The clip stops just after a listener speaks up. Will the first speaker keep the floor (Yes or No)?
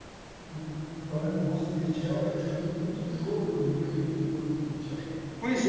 No